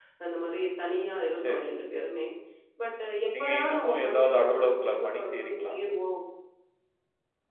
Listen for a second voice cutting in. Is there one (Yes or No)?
Yes